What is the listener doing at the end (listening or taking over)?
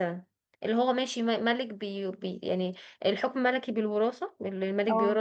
listening